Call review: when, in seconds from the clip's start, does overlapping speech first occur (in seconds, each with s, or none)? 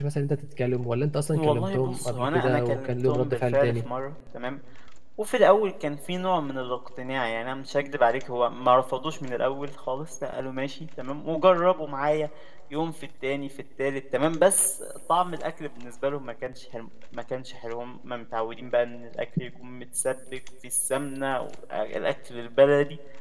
1.3 s